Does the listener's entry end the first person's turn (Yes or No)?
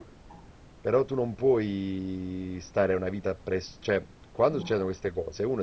No